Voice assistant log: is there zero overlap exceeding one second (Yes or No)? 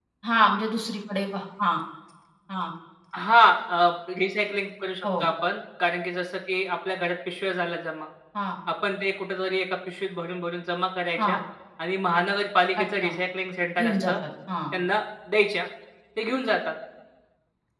Yes